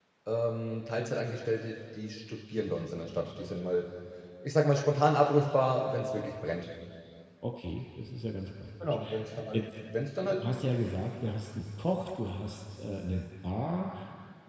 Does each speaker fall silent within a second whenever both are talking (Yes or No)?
Yes